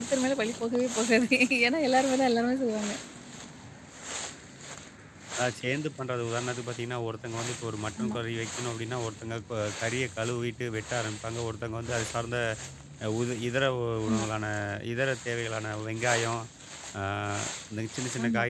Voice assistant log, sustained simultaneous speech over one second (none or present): none